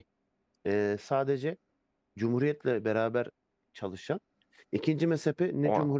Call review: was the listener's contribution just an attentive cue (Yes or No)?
Yes